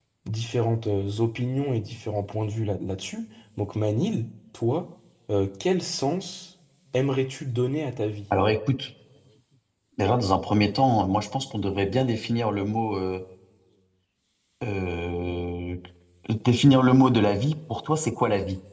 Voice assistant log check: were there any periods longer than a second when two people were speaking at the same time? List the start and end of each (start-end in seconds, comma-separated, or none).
none